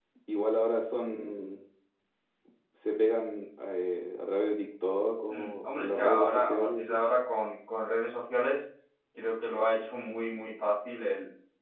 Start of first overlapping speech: 5.3 s

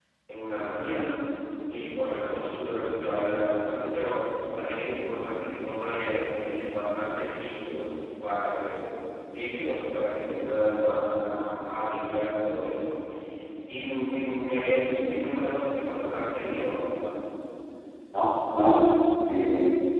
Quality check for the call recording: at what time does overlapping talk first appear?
none

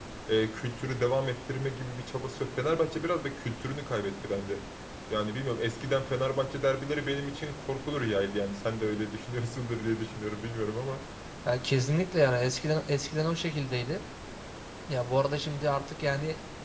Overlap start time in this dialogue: none

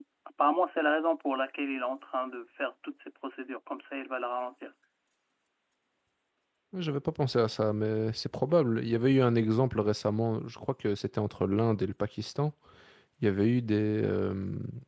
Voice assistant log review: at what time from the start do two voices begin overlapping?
none

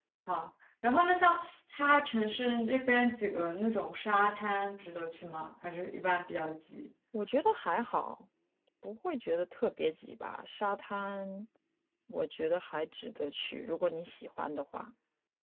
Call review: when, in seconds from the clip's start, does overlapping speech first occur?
none

